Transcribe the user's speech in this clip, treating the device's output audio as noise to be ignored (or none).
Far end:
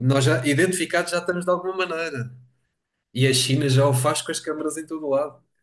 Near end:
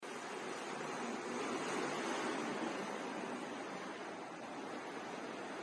none